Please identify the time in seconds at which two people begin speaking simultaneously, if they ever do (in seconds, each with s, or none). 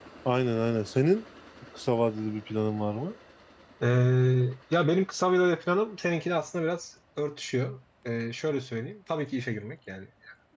none